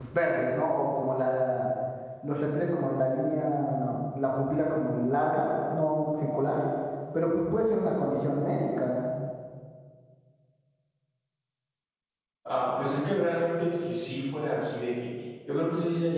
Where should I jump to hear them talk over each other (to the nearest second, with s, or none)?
none